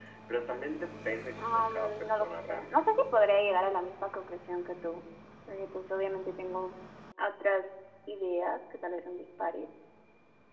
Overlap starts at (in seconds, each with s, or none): 1.4 s